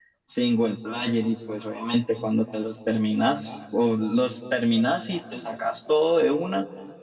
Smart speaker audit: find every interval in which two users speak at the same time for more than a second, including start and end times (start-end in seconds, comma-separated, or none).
none